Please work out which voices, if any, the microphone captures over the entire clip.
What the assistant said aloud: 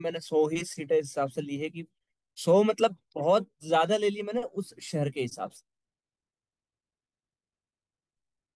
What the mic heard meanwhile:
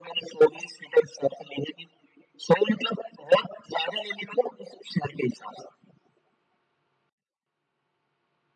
echo only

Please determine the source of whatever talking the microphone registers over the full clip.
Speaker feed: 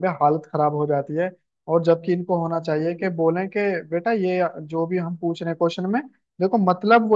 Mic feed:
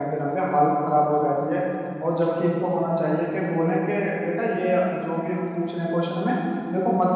echo only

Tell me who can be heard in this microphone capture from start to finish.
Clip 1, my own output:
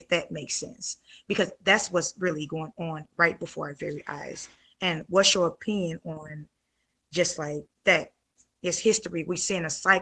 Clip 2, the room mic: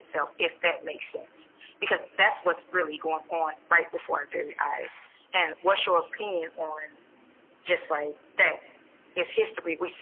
echo only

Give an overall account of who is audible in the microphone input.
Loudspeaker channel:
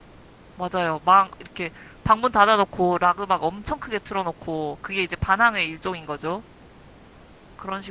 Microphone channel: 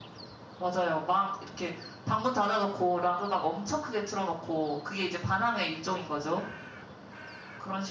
echo only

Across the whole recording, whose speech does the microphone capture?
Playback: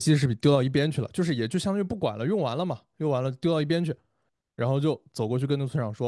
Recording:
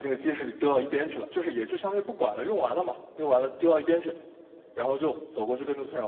echo only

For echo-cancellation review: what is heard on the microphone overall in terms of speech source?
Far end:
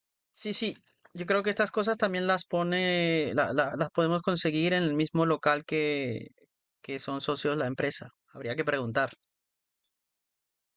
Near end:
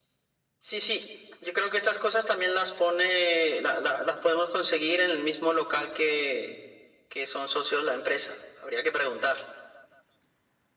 echo only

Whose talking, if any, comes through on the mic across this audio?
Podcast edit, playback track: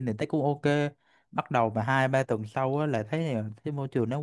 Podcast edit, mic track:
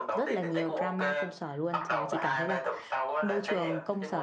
both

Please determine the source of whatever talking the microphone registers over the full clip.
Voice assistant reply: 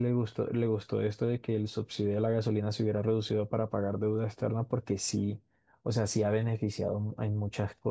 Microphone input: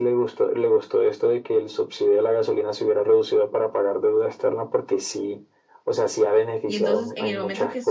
both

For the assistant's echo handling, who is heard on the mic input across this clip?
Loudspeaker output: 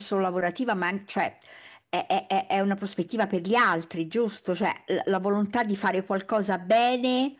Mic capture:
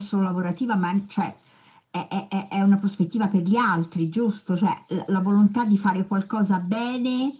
echo only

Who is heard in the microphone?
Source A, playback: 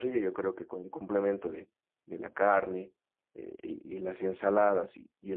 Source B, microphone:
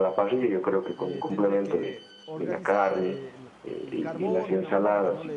both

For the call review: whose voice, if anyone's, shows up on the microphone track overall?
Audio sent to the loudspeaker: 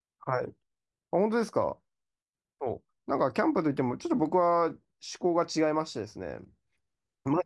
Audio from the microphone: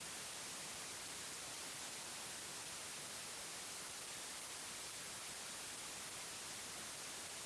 neither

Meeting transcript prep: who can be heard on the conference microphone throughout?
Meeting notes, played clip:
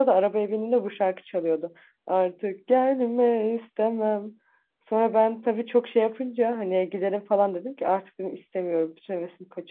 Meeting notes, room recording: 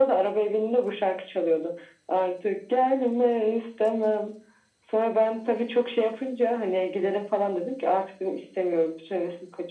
echo only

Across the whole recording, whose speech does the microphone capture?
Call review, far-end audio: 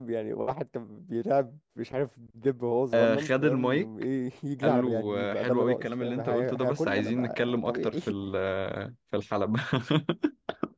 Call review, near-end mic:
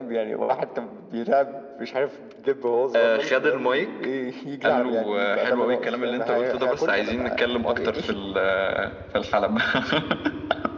echo only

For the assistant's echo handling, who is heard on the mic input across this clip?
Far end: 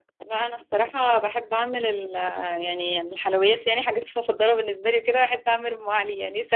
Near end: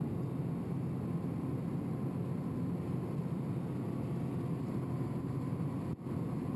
neither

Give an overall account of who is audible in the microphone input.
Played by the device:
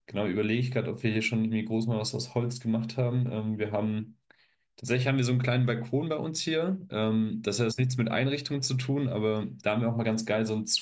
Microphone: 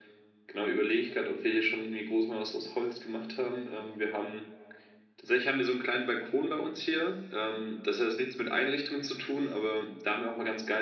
echo only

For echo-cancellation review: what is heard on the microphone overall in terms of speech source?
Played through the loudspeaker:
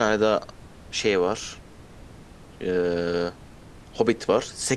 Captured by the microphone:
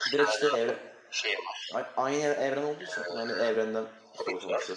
both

